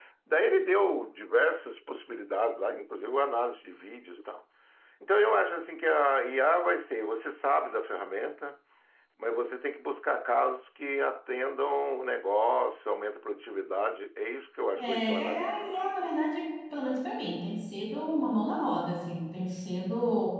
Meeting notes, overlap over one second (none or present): present